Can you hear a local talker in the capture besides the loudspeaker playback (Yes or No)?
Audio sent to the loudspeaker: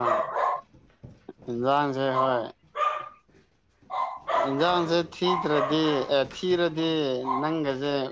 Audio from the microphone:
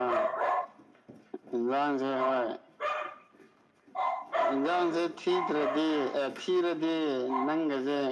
No